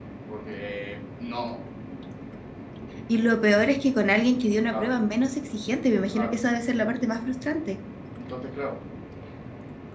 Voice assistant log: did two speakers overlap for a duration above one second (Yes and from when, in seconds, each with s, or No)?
No